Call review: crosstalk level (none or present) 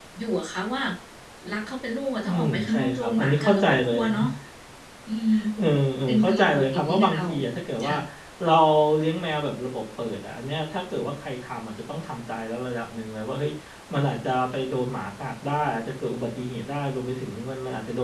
present